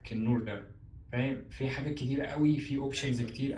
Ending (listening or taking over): listening